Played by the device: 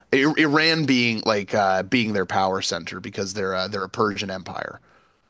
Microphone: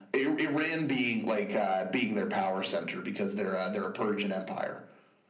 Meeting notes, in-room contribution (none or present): none